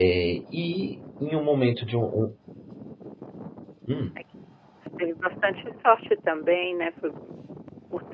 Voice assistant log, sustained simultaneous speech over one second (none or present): none